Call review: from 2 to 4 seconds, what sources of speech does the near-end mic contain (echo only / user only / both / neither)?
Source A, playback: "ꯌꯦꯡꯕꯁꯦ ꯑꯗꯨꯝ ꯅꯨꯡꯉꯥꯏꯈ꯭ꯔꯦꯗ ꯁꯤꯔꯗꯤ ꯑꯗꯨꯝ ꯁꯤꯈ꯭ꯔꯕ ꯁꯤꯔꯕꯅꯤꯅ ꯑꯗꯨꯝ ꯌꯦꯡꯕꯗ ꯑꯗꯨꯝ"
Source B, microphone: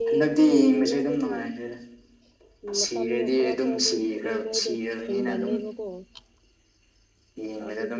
both